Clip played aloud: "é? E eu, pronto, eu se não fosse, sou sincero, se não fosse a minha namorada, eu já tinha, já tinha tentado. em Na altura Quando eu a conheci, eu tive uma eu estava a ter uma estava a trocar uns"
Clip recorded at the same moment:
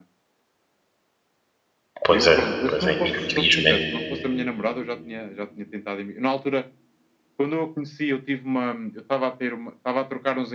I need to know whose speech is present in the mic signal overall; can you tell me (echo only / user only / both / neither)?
both